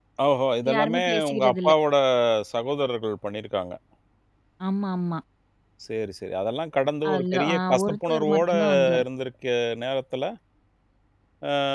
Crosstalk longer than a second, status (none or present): present